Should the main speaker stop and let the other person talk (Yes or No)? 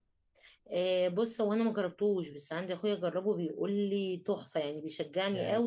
Yes